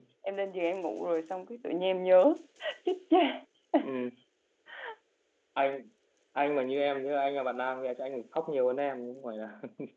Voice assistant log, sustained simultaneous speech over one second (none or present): none